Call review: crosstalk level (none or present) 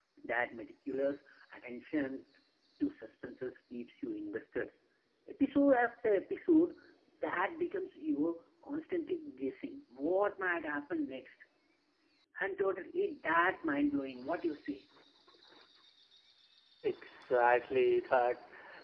none